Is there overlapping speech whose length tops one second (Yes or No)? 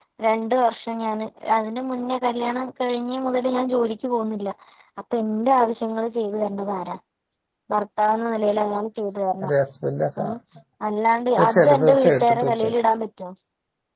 Yes